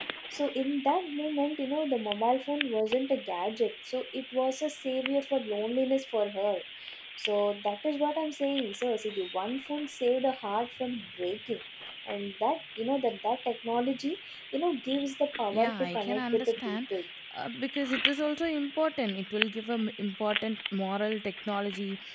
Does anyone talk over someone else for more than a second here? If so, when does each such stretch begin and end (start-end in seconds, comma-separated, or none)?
15.5-16.8